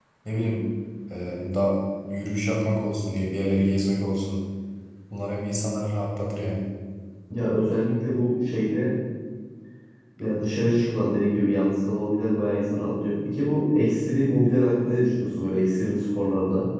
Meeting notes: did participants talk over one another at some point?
No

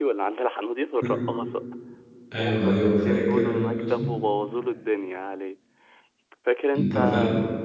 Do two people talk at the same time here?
Yes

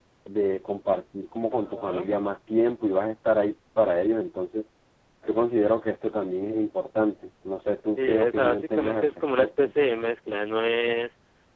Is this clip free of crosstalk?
No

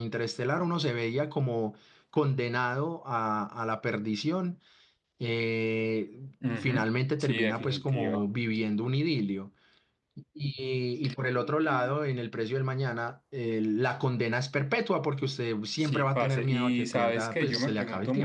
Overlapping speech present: Yes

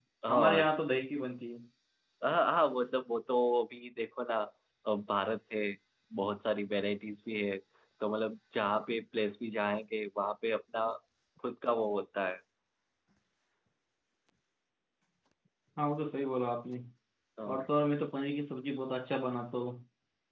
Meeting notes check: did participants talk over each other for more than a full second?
No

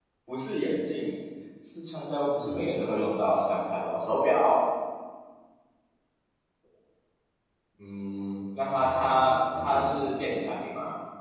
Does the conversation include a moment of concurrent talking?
Yes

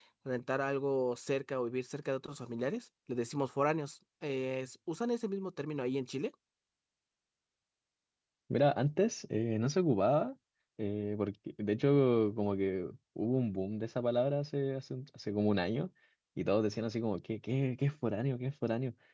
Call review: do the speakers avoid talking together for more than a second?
Yes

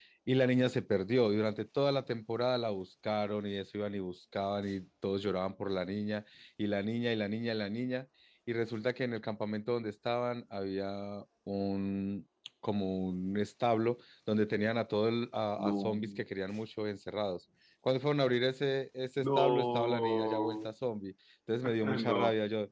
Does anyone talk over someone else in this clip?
Yes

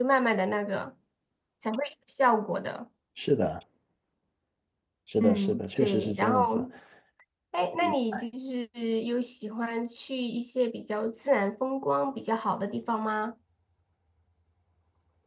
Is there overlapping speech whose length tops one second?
Yes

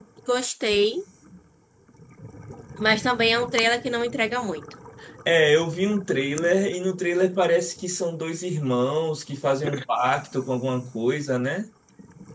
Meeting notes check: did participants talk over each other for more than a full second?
No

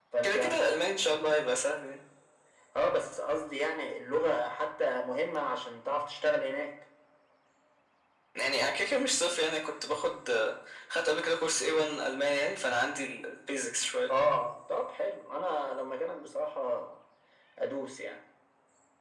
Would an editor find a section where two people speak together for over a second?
No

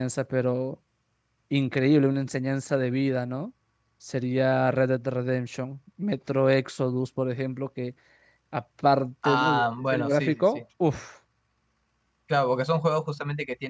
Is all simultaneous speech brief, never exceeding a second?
No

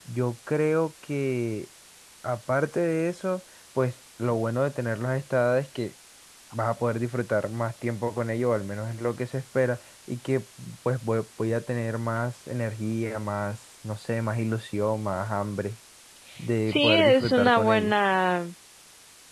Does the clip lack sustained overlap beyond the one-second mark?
No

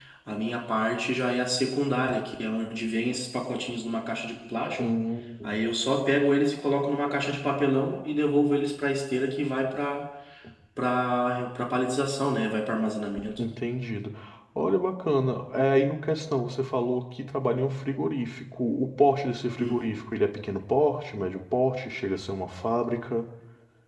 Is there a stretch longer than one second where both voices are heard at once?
No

